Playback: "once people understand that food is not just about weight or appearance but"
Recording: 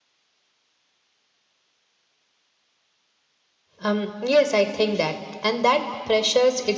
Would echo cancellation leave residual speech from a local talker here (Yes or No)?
Yes